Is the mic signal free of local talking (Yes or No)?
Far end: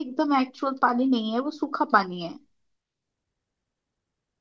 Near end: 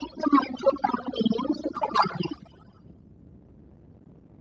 Yes